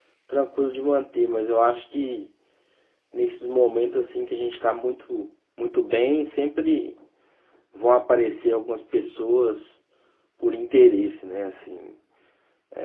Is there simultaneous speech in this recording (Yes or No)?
No